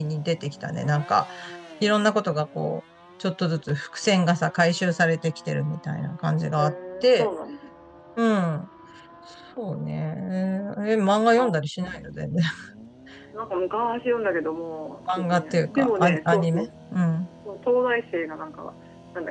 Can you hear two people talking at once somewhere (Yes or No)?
Yes